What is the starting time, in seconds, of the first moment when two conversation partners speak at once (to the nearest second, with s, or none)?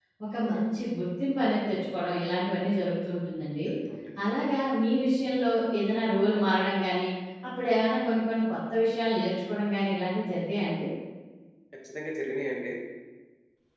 none